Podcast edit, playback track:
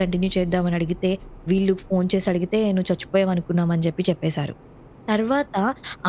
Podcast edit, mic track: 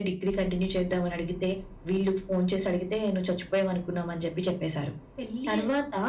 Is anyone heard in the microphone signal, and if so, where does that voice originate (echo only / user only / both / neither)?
both